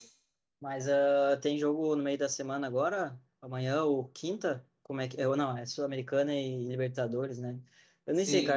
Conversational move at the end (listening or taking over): listening